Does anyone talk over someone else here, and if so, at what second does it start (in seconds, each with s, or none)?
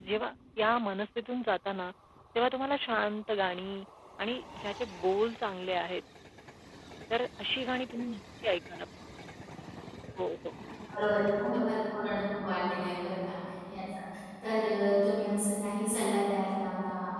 none